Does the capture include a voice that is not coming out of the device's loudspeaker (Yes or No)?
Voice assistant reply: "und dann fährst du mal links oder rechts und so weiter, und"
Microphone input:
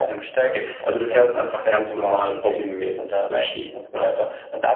Yes